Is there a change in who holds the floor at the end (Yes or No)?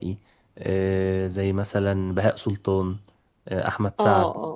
Yes